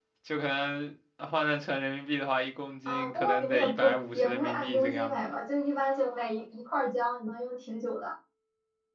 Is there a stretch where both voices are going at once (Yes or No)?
Yes